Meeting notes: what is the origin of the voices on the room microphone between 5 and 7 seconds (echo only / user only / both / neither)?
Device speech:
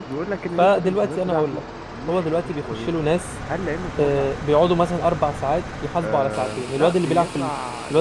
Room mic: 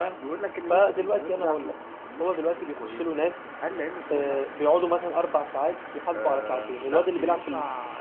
echo only